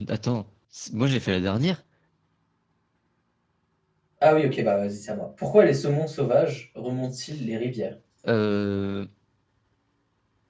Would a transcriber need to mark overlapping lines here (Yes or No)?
No